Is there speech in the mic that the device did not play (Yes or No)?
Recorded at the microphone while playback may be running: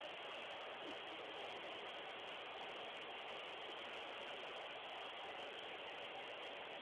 No